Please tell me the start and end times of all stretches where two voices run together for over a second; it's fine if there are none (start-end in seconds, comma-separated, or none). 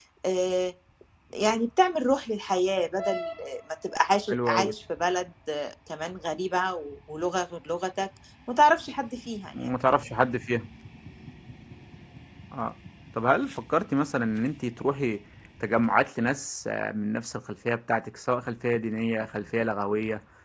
none